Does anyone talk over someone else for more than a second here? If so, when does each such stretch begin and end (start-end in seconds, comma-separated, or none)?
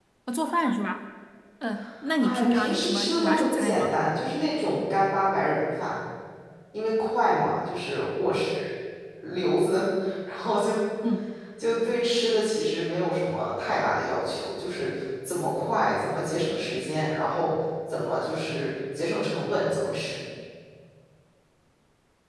2.2-3.9